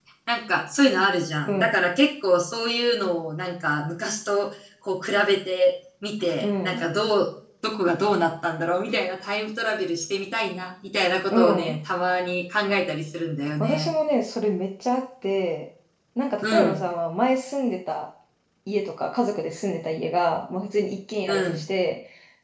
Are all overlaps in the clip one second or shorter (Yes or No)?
Yes